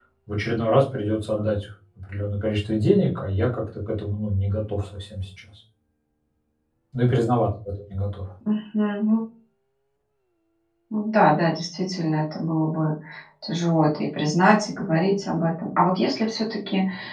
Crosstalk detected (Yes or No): No